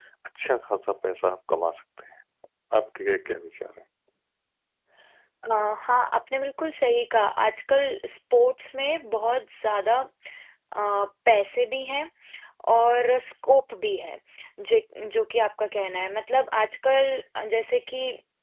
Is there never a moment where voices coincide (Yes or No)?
Yes